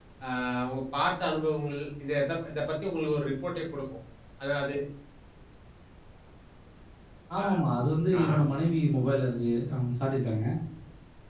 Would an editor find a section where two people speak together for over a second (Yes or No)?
No